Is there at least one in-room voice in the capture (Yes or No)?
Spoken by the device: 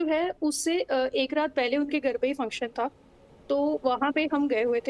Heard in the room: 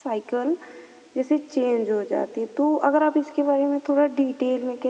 Yes